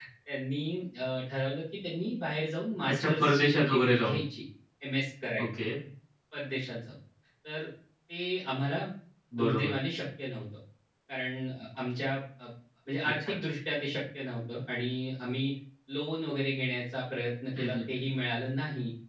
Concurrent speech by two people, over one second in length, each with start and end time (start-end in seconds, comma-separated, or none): 2.9-4.2